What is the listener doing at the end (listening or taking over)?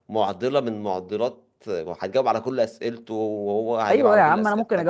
taking over